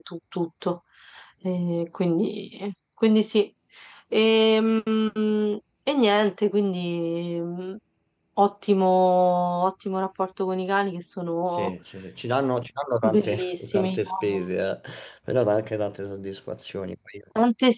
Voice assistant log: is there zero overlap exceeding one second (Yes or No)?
No